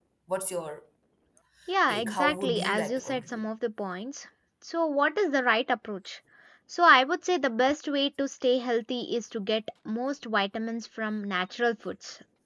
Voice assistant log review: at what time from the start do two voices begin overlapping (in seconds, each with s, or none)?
1.9 s